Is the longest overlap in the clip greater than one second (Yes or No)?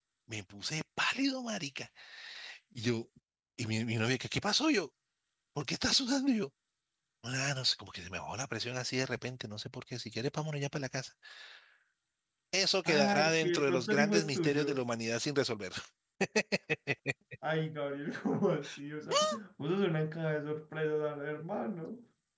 Yes